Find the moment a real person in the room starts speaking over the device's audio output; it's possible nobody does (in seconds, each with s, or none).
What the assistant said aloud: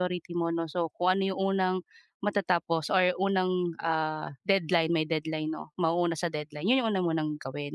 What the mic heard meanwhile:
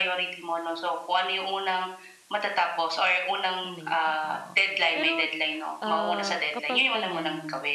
3.6 s